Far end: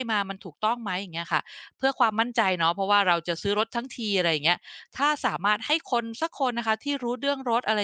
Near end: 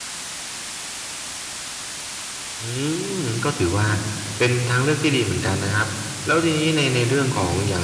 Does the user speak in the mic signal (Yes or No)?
Yes